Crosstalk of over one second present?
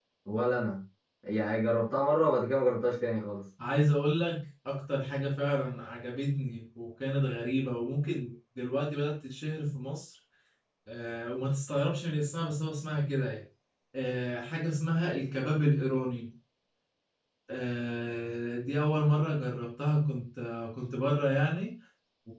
No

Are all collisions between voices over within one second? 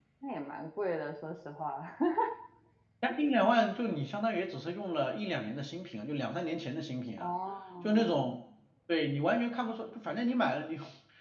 Yes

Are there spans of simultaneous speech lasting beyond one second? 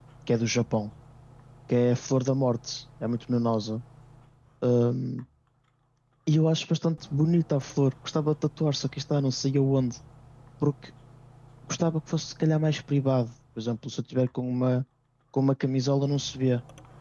No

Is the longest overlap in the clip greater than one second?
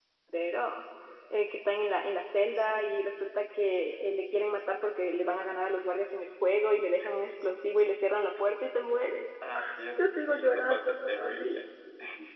Yes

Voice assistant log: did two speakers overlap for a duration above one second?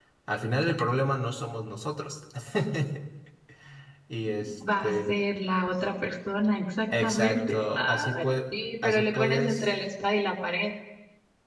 Yes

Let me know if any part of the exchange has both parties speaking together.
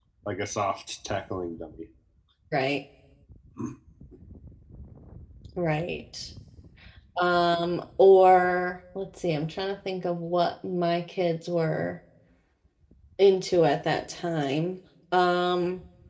No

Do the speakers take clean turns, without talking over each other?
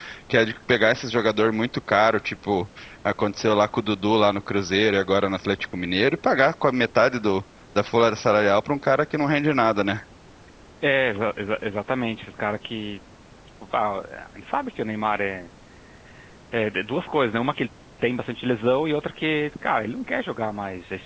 Yes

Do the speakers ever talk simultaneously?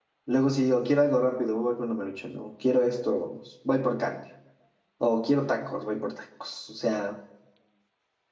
No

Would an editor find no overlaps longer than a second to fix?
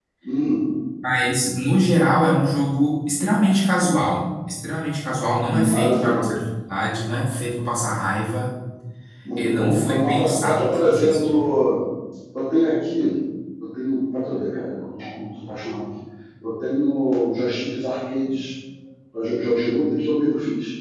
No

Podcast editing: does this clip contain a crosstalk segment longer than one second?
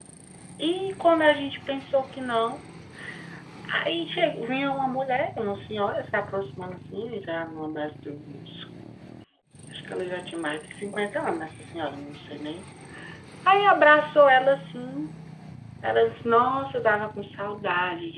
No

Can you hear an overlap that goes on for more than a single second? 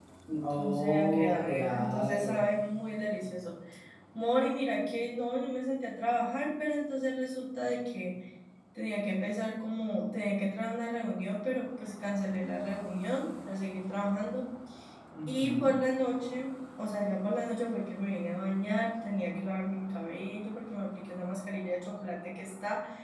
Yes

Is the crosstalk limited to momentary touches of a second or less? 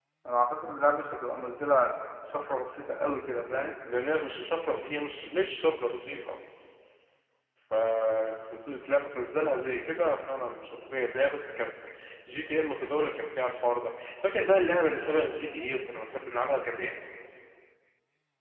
Yes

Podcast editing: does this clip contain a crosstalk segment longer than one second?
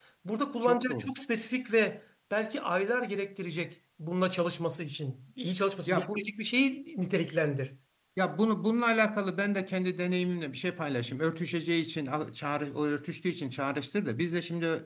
No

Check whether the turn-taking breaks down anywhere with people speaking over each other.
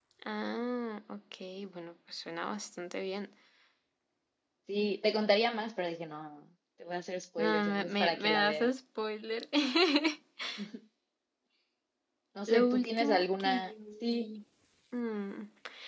Yes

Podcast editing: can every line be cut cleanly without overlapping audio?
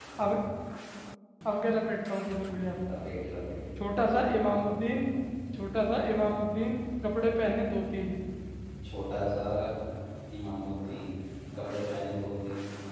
Yes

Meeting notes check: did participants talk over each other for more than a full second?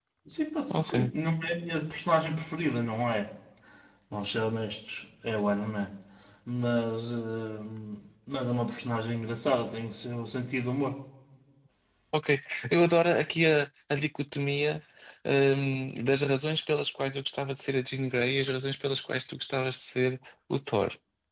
No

